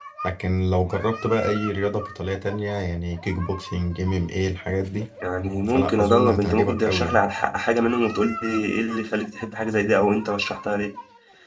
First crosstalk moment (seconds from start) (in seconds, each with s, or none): 5.7 s